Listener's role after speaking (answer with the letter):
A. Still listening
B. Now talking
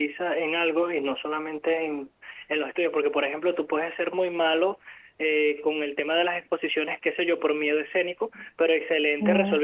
A